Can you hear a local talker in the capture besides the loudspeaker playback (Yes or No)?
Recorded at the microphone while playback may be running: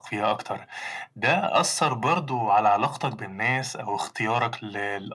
No